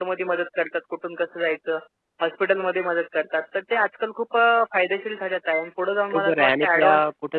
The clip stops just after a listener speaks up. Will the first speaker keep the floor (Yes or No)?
No